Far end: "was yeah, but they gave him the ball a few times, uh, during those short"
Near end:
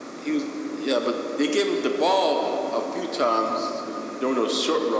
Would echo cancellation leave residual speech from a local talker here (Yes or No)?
No